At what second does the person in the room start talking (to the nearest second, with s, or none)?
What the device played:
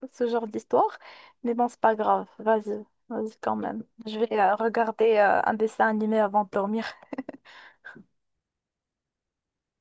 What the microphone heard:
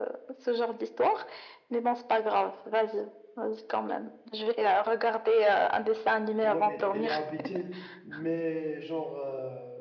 6 s